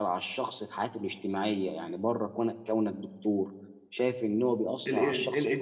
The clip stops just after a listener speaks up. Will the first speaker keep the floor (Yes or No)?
No